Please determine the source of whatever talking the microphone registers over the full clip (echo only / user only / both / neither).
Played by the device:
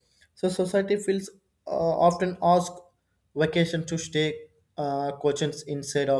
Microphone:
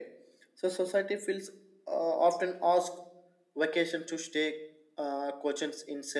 echo only